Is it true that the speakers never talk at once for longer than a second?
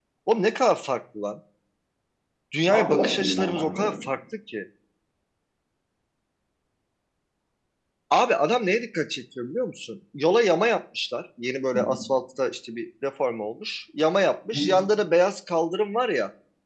No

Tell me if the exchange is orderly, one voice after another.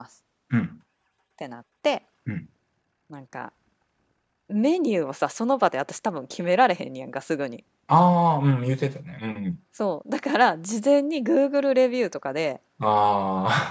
Yes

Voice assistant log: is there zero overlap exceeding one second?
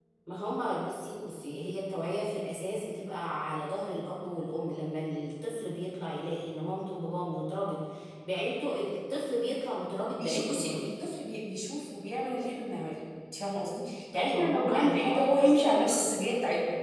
No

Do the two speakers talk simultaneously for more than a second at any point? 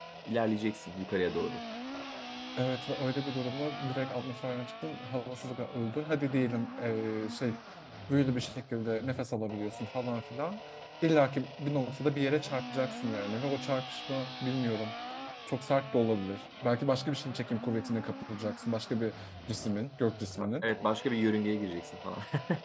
No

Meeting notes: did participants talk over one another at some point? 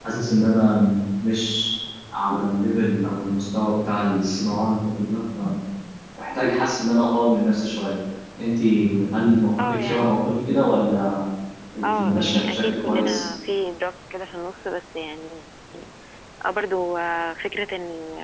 Yes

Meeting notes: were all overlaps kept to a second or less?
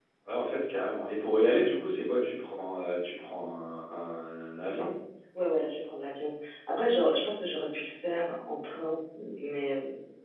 Yes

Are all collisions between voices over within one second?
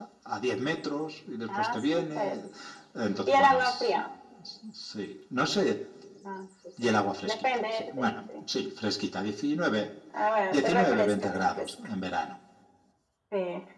No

